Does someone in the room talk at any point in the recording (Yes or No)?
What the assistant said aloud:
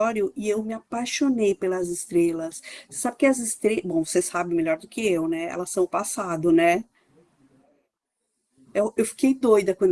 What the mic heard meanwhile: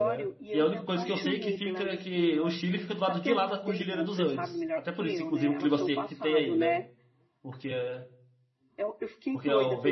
Yes